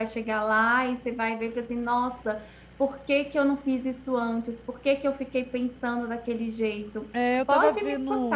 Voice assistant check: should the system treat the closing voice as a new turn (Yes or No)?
Yes